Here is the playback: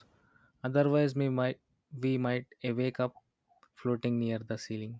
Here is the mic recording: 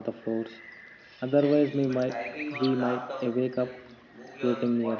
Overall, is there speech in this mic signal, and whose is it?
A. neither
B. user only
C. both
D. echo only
C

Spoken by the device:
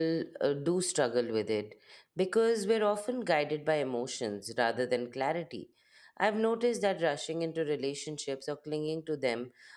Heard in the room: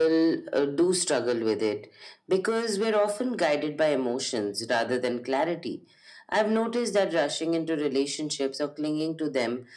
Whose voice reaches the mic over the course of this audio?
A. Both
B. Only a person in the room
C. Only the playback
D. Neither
C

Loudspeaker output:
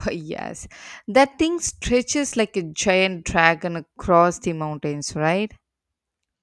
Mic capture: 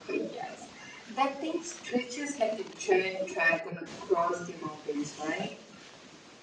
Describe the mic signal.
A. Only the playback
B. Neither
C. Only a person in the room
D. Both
A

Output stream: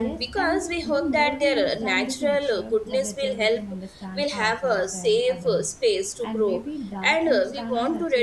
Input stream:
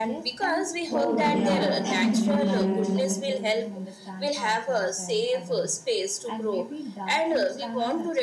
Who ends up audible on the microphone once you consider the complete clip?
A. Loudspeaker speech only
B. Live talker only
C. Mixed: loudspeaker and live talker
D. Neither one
C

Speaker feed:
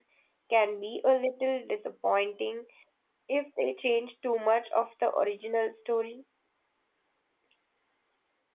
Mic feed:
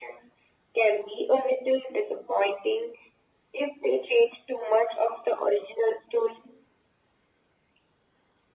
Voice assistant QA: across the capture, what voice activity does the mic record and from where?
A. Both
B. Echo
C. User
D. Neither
B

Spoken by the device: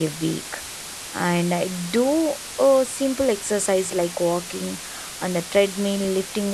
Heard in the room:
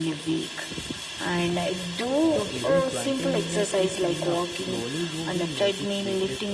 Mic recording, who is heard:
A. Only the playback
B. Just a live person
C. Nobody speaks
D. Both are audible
D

